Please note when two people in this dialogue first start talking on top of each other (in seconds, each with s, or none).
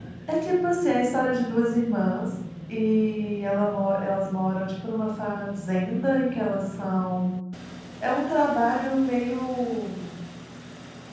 none